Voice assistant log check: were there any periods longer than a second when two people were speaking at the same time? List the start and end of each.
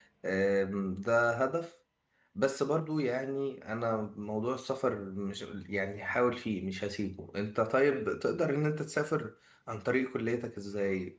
none

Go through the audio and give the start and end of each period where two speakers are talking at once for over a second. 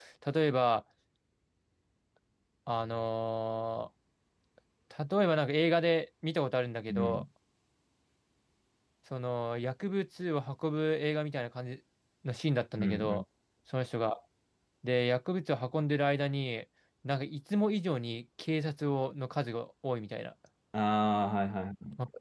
none

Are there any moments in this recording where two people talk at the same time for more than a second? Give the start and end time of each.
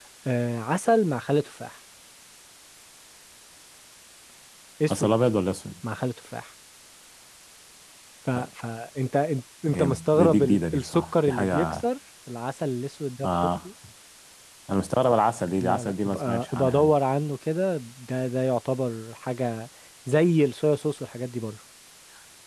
9.7-11.8, 15.6-16.9

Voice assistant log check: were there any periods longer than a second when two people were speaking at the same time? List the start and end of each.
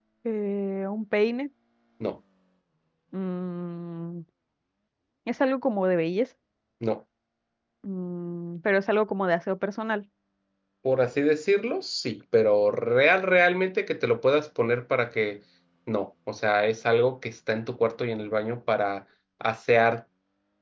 none

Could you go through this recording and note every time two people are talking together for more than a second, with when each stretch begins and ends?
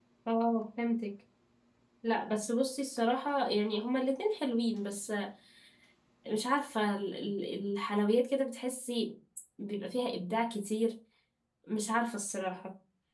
none

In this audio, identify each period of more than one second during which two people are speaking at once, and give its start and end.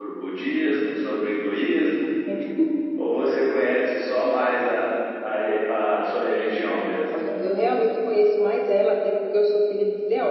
none

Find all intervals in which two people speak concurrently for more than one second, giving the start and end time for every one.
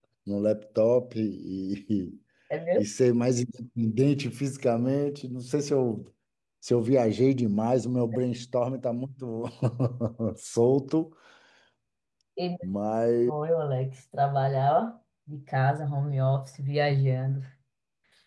none

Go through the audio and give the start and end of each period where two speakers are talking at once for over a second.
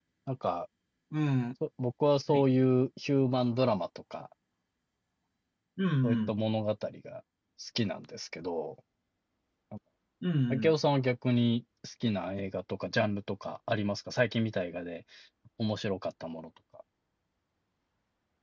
none

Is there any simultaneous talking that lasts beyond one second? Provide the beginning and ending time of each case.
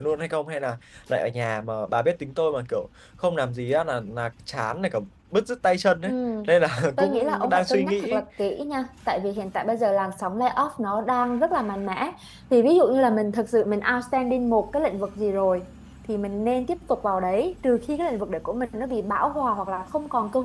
7.0-8.2

